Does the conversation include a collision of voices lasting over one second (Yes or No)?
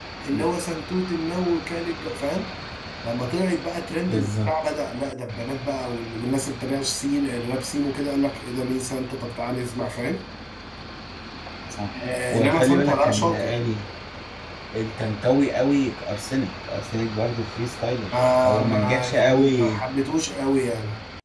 Yes